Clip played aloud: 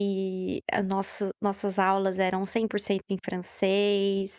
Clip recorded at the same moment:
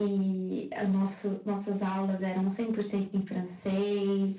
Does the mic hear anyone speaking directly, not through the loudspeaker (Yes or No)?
No